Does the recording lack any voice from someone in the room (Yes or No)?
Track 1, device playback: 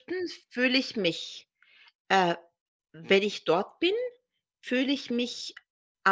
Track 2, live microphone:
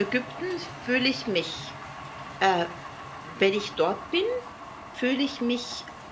Yes